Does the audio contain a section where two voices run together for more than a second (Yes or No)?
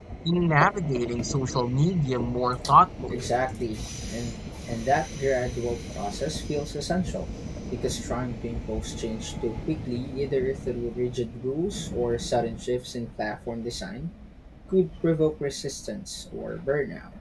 No